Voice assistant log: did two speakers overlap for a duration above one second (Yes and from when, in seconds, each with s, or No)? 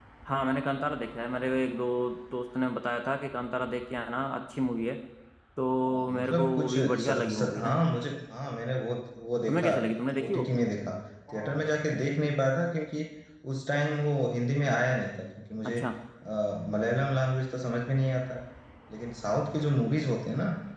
Yes, from 5.8 s